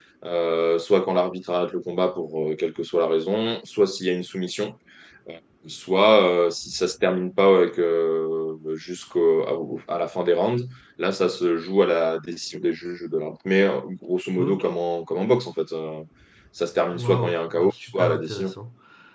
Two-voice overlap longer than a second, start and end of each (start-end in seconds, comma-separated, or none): 16.9-18.5